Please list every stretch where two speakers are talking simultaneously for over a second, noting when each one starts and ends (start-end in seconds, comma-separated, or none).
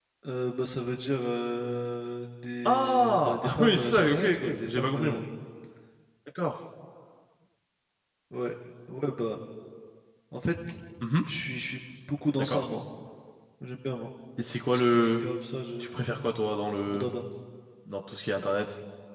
2.6-5.2